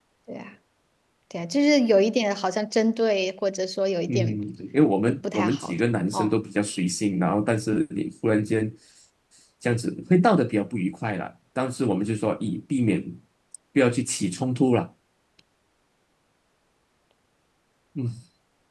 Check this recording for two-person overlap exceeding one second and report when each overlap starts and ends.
5.0-6.3

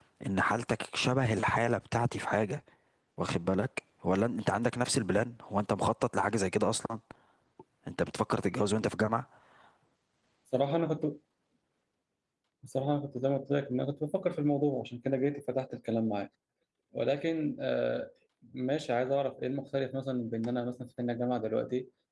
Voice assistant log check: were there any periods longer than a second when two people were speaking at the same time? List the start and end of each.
none

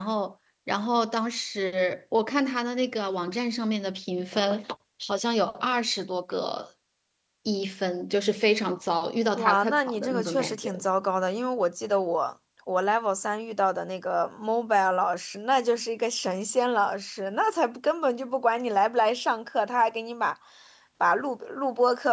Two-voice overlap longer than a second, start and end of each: 9.4-10.8

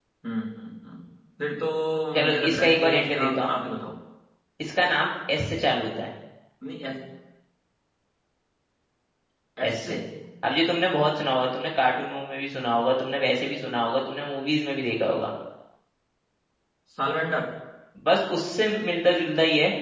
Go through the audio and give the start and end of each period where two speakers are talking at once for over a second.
2.2-3.5

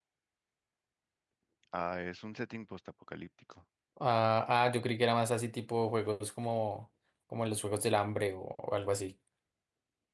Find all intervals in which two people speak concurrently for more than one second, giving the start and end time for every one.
none

